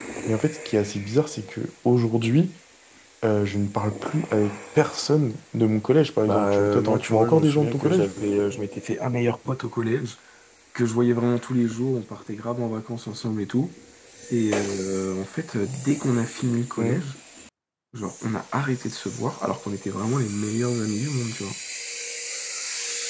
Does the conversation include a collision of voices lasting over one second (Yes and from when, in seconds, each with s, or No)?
Yes, from 6.3 s